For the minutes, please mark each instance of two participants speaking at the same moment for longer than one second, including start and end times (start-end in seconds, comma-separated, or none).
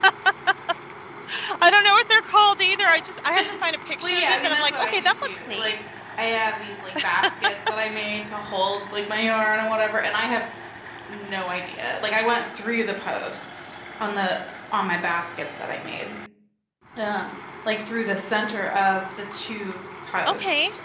4.0-5.7